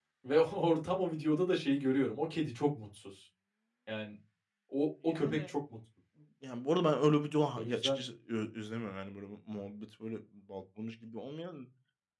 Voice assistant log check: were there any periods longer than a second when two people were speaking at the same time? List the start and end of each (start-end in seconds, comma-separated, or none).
none